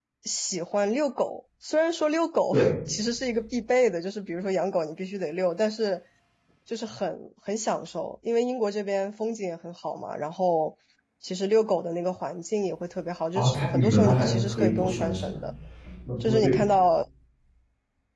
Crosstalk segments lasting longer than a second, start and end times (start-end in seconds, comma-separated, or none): 13.4-15.3